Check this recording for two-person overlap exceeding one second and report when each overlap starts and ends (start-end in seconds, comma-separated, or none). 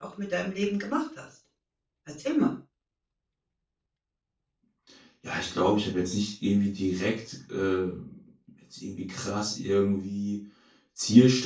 none